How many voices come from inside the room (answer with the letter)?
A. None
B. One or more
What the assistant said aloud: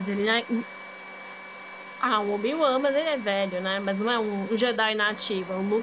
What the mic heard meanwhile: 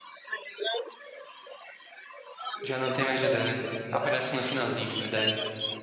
B